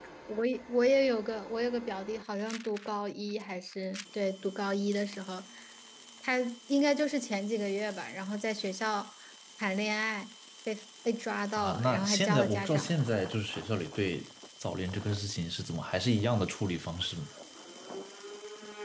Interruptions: present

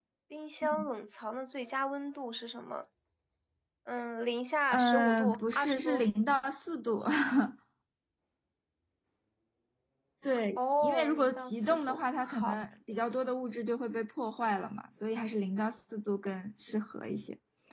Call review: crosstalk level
present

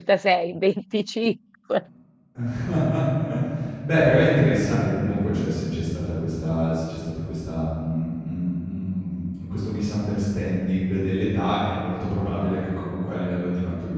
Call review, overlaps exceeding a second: none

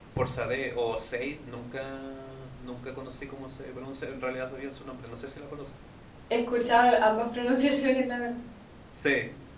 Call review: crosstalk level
none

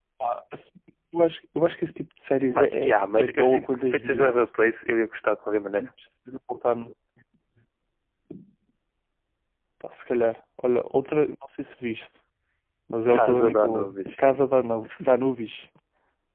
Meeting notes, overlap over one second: present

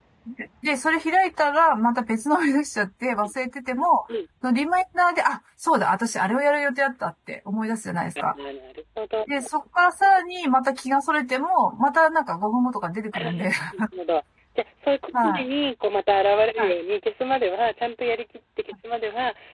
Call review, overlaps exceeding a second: none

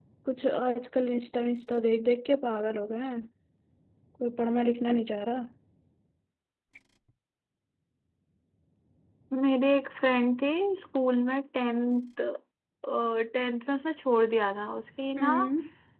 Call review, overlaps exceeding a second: none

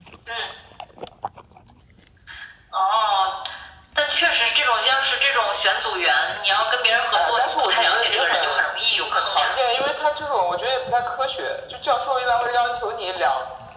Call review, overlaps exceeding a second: present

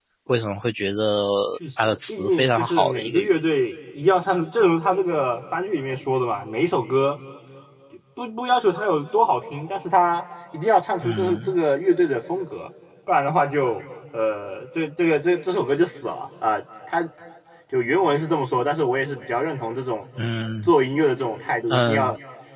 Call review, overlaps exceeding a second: present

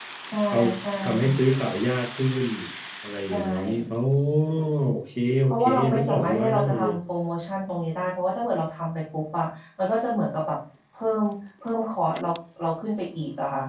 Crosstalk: present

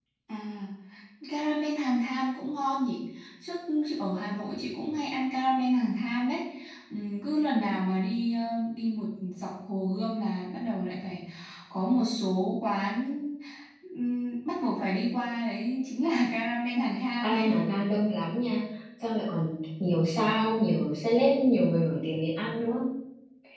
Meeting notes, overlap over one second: none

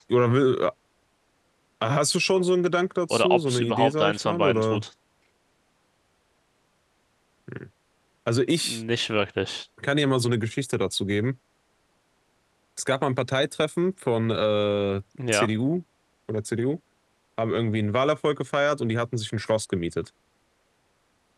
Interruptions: present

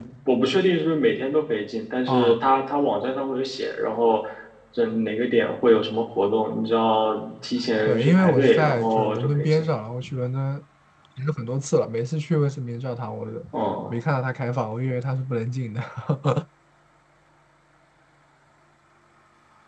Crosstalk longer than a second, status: present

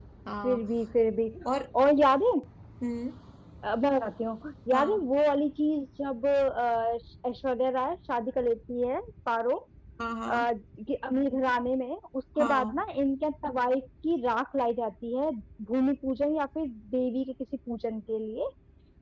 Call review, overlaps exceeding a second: none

